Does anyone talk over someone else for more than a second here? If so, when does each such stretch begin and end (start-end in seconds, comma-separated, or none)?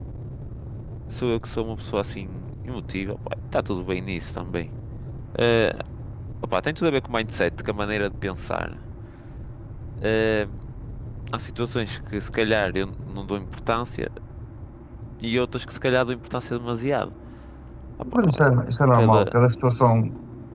none